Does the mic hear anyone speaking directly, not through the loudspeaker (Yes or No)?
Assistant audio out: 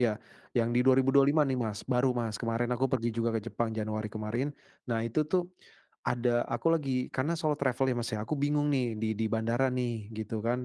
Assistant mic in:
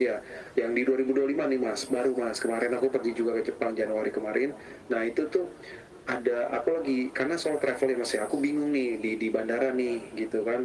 No